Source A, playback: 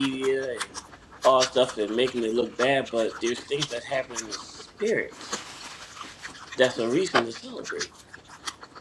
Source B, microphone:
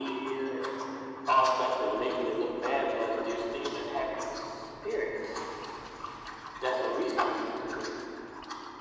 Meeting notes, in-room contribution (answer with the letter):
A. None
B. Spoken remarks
A